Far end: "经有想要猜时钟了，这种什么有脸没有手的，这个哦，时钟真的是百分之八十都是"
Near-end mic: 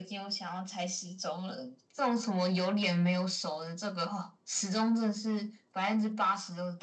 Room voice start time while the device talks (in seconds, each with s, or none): none